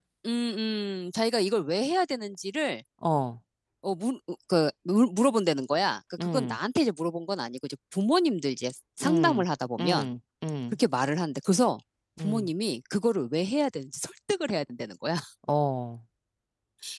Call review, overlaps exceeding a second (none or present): none